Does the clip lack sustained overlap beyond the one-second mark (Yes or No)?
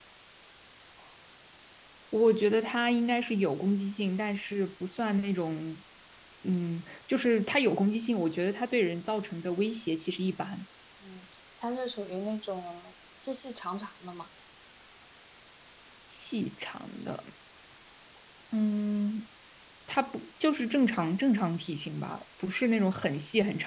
Yes